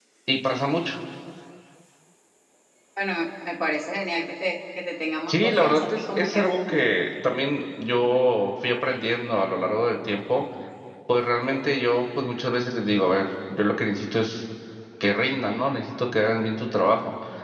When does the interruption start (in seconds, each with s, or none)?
5.3 s